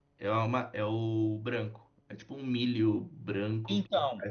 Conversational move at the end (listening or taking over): taking over